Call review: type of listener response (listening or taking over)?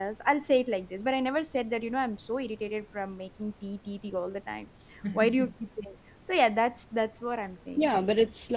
taking over